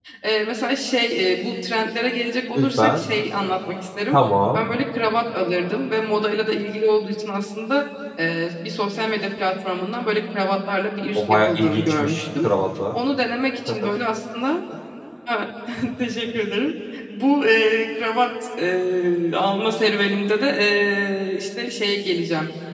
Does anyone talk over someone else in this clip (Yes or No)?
Yes